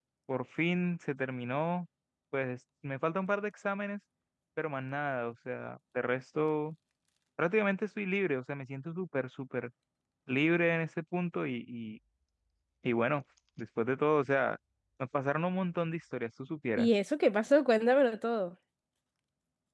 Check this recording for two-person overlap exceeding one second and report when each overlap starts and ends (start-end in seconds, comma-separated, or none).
none